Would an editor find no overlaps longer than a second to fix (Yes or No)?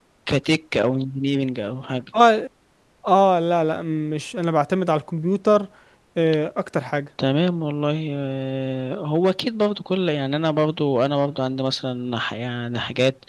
Yes